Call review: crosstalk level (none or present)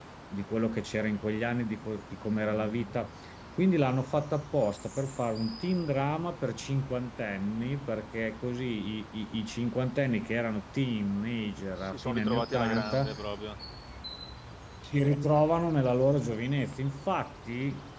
present